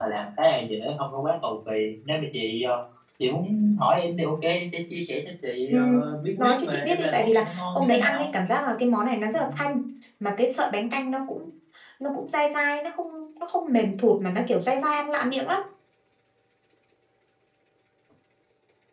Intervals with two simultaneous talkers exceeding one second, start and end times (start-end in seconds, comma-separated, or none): 6.4-8.3